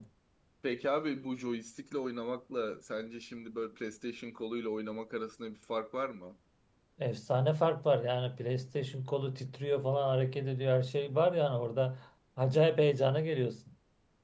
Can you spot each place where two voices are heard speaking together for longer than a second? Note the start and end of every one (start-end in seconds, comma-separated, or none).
none